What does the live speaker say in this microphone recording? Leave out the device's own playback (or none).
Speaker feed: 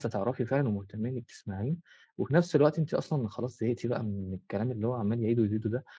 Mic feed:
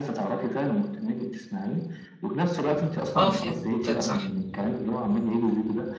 آه، فهمتك صح.